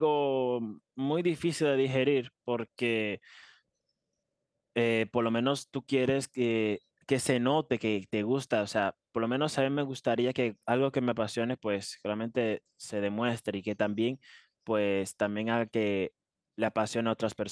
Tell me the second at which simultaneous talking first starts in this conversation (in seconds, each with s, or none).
none